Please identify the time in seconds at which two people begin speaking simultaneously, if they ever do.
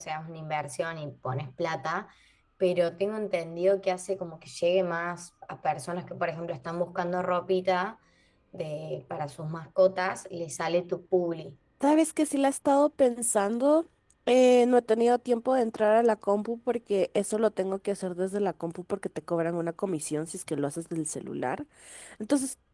none

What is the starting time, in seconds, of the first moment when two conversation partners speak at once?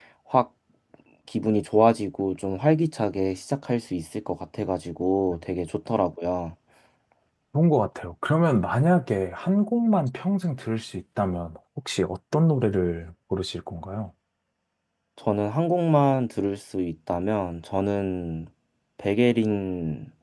none

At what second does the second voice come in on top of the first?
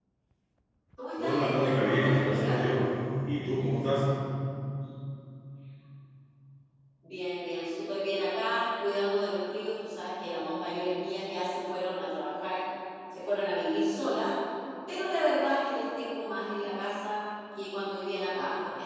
1.2 s

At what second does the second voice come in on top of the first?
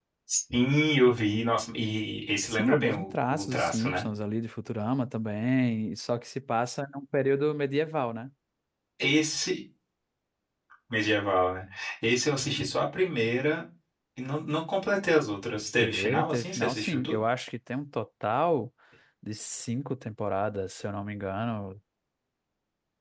2.5 s

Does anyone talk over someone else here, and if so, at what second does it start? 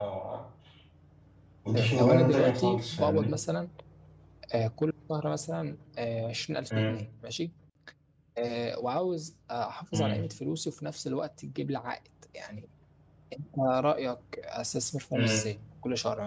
1.7 s

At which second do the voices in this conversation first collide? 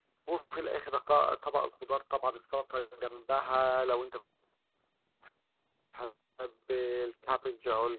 none

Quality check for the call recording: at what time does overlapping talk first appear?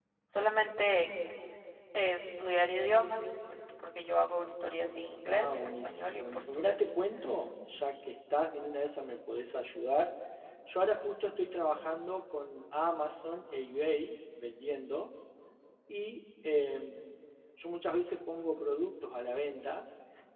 5.3 s

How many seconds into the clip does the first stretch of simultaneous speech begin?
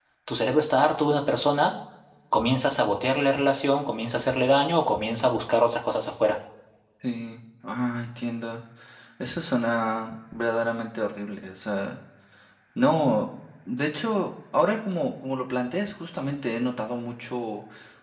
none

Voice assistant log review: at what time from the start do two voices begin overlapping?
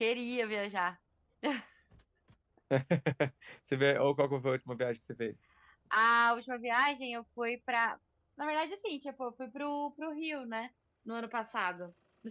none

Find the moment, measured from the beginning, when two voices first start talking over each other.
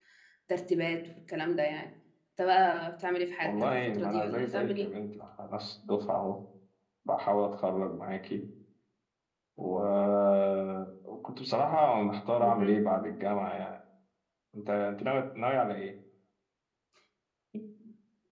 3.4 s

